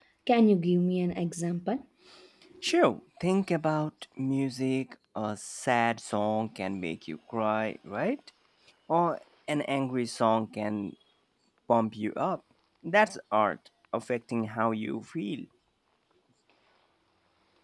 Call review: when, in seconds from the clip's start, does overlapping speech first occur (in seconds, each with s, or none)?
none